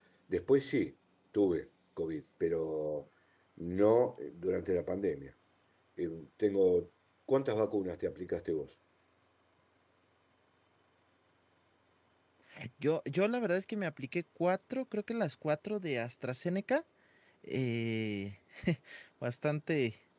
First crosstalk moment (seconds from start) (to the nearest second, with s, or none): none